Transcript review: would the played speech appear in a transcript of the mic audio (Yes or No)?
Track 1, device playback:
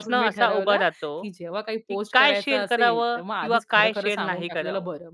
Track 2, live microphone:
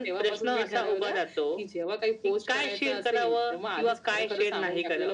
Yes